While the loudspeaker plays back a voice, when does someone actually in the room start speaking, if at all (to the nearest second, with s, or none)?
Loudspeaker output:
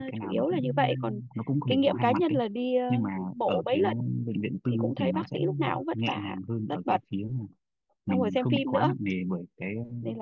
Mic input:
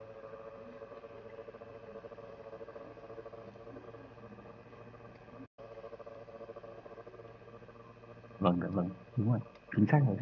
8 s